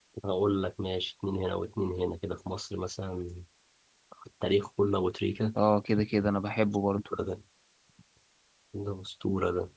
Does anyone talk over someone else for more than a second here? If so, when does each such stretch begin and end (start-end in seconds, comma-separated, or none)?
none